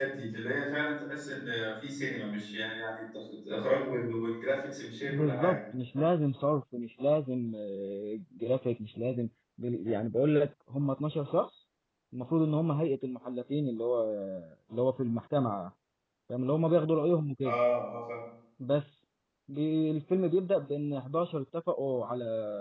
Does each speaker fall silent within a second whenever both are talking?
Yes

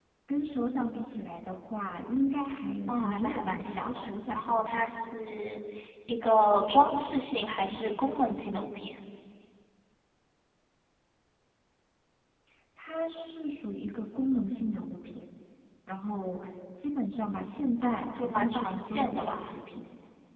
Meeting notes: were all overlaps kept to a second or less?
No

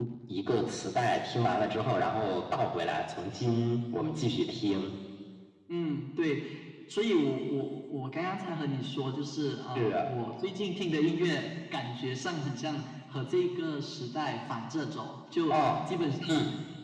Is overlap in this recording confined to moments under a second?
Yes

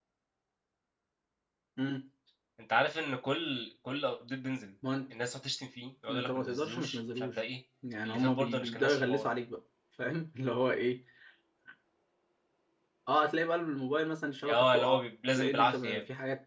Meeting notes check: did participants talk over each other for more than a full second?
Yes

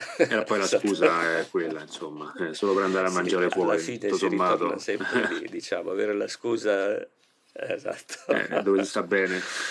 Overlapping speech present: Yes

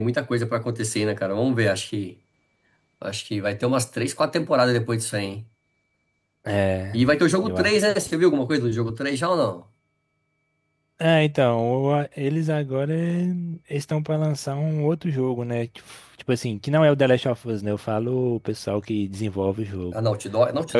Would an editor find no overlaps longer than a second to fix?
Yes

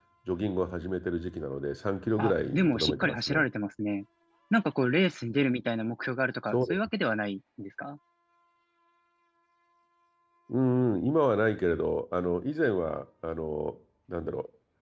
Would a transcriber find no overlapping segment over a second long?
No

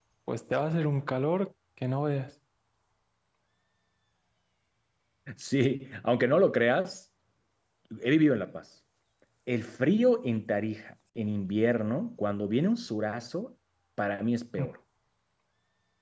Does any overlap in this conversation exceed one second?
No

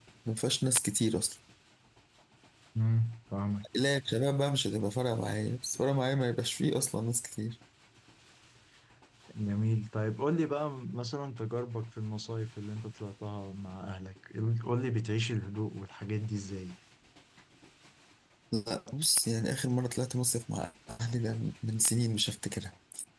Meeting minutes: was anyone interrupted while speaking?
No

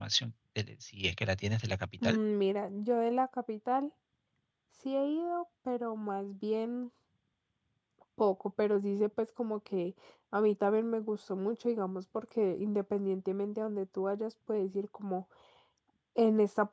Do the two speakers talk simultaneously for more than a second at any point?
No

